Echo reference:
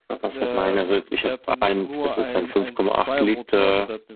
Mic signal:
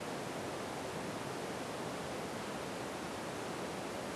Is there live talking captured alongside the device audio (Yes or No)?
No